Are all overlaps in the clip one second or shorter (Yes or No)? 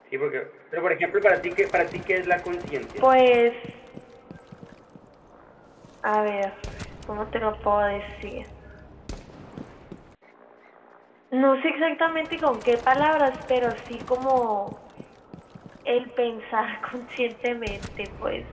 Yes